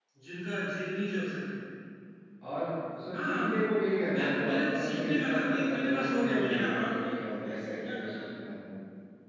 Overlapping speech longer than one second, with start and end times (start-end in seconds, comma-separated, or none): 4.0-8.2